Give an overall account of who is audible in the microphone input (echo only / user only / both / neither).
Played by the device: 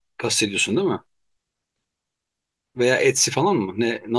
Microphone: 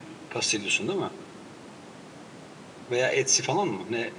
echo only